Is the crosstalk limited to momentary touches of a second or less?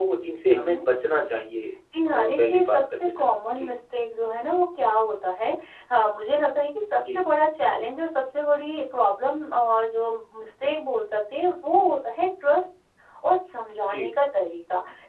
No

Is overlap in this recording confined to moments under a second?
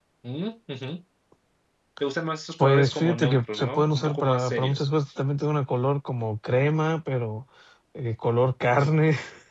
No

